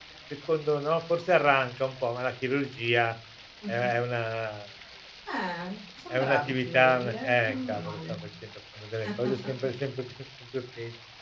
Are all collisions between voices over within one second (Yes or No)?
No